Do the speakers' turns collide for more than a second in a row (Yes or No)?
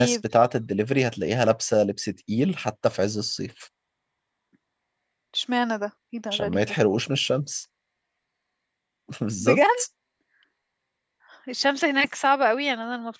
No